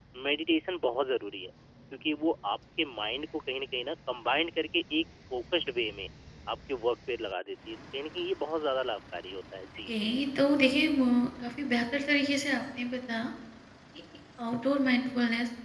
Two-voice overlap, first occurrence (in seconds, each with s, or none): none